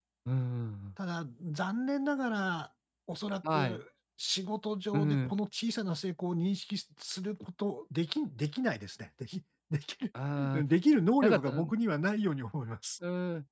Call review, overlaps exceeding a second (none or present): none